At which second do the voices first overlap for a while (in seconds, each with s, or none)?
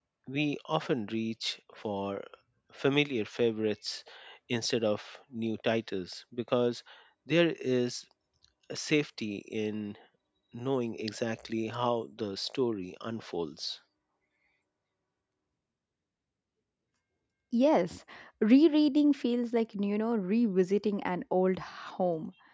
none